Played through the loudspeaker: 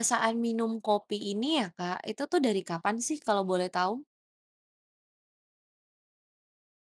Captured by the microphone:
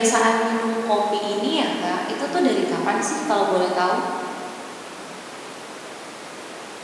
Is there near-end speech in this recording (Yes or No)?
No